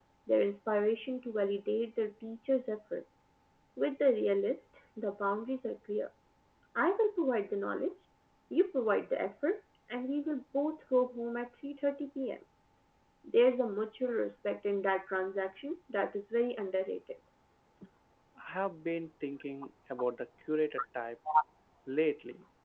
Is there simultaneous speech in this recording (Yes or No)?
No